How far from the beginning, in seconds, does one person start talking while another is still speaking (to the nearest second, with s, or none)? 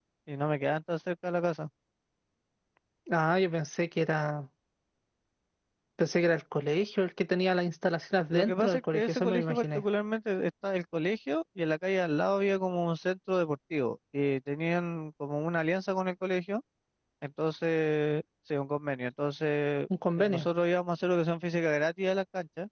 8 s